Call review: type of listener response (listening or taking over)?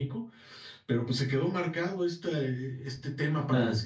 listening